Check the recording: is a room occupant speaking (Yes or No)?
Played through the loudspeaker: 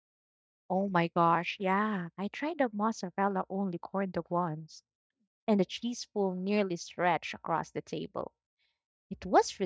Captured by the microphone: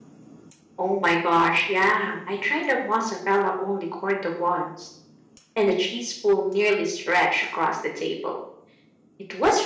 No